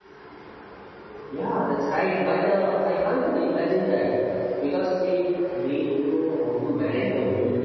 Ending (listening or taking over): taking over